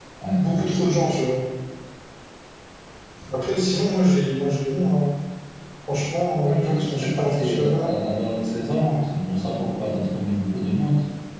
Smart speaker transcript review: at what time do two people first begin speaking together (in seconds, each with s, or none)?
6.4 s